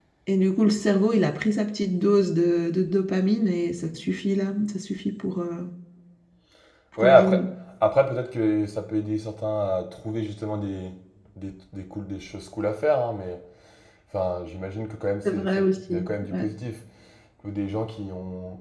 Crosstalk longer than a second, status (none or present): present